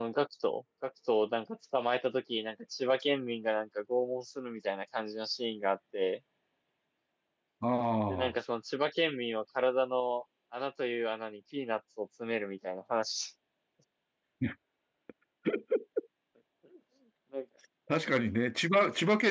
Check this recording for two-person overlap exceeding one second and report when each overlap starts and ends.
none

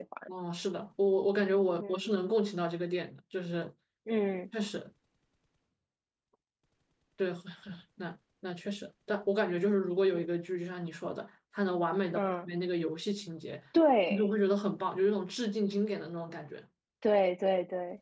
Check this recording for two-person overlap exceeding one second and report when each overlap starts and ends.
none

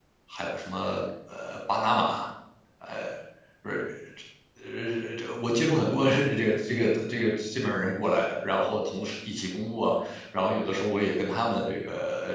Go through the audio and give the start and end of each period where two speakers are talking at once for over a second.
none

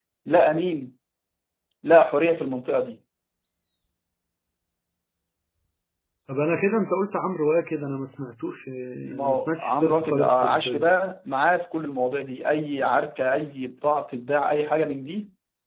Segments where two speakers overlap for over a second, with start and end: 9.0-10.9

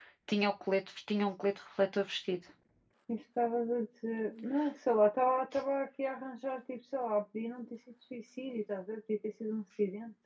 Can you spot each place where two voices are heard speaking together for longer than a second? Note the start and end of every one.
none

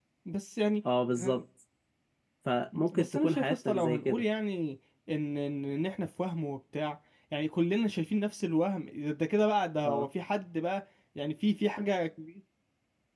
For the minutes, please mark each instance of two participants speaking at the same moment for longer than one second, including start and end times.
2.9-4.2

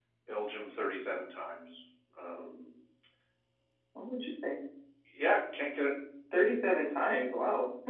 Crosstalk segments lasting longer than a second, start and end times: none

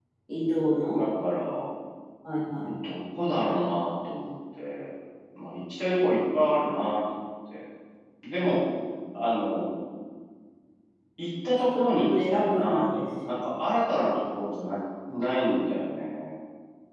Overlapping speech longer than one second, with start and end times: 11.7-13.3

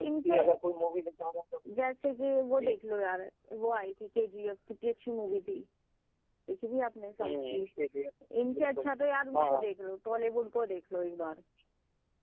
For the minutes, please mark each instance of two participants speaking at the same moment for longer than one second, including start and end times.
none

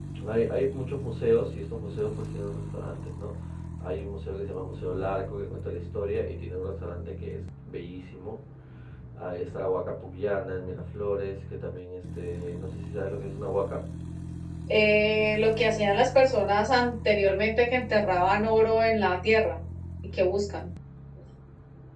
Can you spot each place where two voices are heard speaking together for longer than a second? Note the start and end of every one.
none

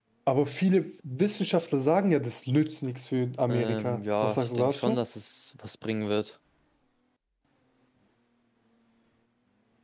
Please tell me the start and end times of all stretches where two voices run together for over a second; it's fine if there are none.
3.5-5.0

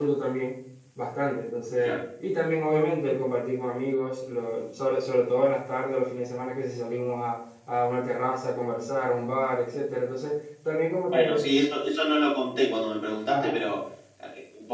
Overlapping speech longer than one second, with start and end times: none

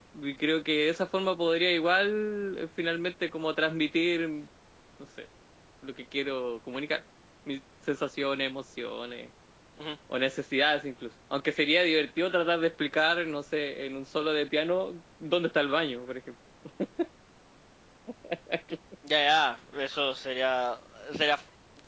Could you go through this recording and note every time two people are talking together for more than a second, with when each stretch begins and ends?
none

